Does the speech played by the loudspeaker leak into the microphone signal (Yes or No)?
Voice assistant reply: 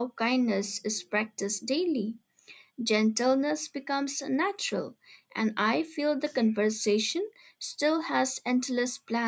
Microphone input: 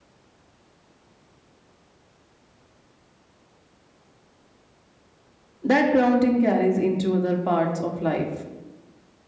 No